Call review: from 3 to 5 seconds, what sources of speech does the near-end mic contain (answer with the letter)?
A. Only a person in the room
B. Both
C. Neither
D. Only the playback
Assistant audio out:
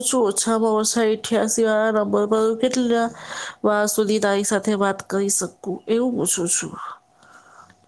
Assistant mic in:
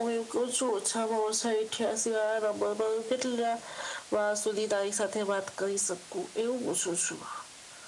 D